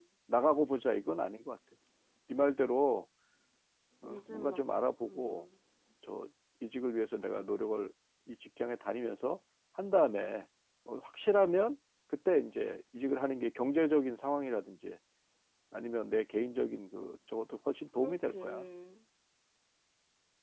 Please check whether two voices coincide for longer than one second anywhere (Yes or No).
Yes